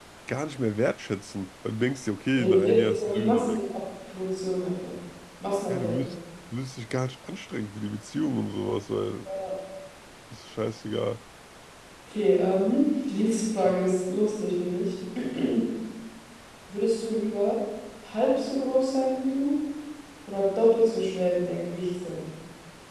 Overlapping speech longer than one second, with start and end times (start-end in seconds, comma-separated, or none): 2.4-3.6